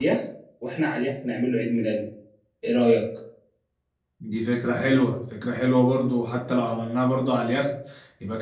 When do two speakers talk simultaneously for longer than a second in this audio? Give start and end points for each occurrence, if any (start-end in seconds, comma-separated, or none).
none